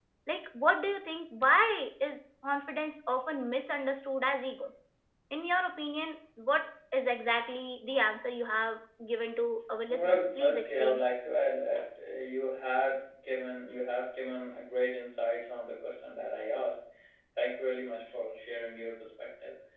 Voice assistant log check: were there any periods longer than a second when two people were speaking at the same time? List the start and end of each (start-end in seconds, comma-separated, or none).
9.9-11.1